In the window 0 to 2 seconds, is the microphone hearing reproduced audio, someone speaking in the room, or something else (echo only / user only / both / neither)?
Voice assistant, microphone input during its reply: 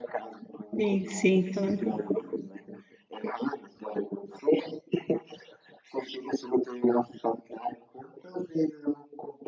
both